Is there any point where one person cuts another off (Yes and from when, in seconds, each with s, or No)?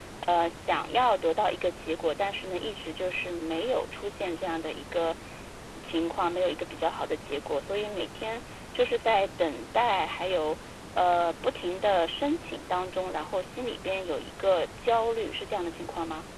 No